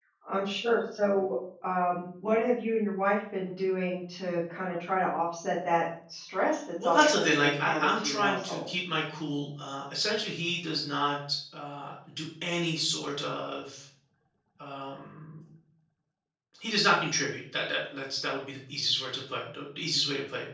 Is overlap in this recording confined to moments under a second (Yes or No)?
No